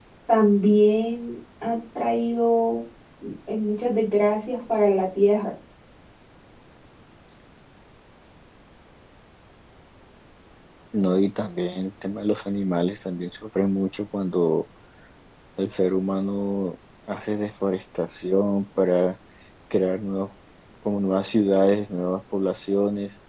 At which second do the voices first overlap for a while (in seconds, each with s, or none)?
none